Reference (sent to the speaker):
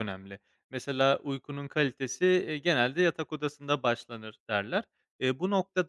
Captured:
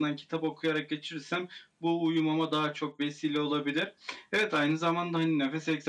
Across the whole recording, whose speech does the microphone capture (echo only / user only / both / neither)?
user only